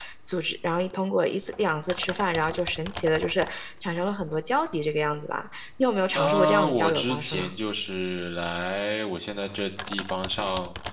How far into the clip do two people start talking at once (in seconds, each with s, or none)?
6.1 s